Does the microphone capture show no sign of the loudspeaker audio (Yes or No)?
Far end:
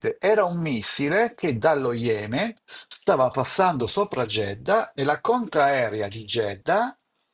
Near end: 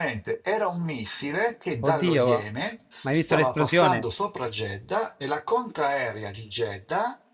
No